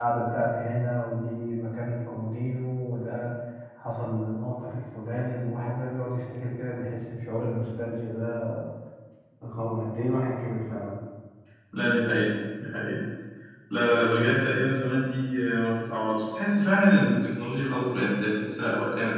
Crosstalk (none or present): none